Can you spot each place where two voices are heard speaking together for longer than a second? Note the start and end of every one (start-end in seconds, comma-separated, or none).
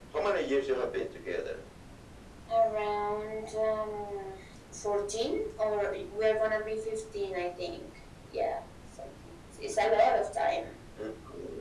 none